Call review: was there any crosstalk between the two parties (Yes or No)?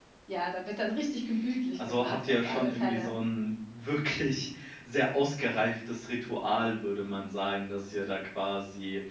Yes